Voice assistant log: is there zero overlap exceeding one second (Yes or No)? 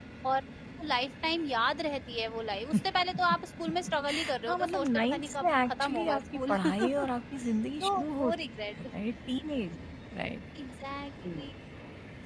No